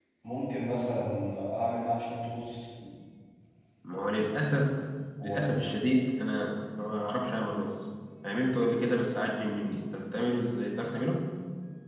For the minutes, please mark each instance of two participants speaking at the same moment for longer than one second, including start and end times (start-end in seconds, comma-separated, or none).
none